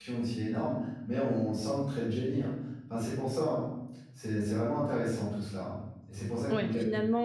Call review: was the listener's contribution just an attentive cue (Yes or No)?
No